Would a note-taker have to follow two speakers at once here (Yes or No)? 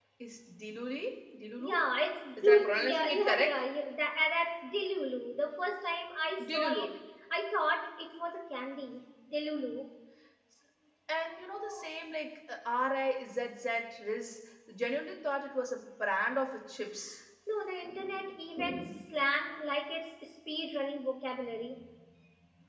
Yes